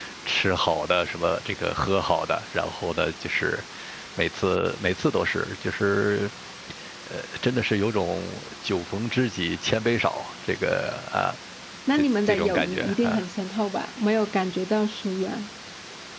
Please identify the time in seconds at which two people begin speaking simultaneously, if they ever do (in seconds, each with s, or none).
11.9 s